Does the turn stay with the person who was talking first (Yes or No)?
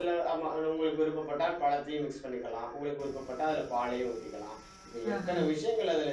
Yes